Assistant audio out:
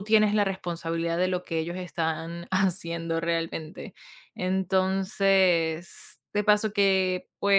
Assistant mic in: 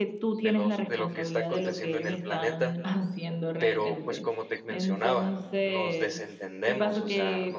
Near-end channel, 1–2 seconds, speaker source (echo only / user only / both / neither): both